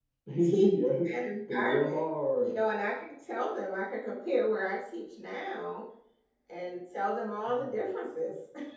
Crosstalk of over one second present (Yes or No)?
No